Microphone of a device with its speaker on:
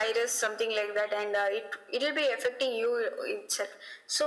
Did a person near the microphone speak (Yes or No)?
No